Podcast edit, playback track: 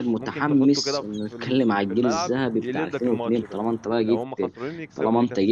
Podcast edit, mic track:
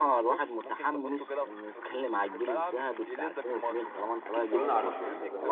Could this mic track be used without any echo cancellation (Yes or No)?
No